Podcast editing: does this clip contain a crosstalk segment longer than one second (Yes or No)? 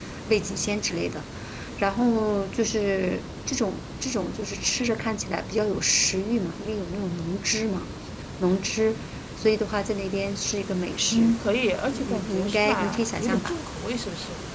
Yes